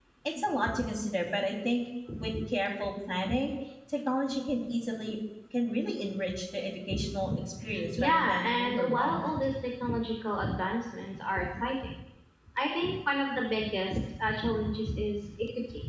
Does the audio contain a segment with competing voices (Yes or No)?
Yes